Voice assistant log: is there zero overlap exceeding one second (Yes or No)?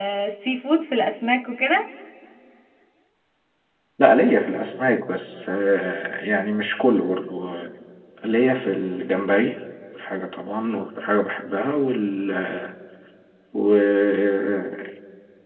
Yes